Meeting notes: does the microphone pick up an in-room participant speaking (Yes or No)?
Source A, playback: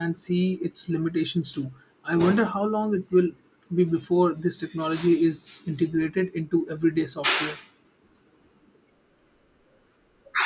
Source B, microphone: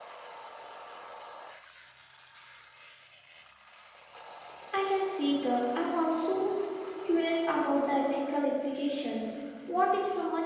Yes